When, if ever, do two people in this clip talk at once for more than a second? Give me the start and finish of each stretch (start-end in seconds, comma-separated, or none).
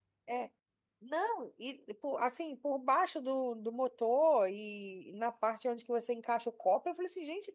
none